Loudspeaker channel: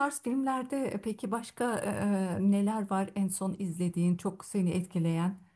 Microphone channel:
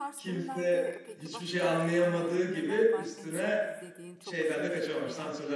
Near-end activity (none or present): present